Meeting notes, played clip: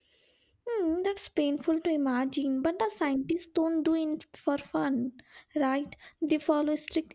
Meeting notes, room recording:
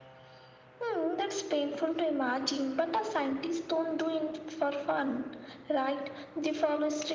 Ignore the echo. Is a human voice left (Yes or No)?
No